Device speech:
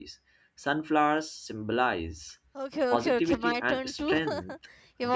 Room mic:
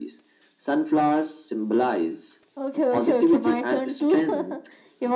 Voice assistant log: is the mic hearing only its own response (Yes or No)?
Yes